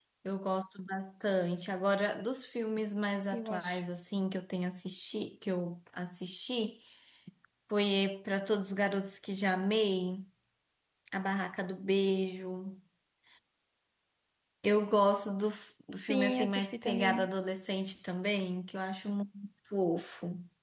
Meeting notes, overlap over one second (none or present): present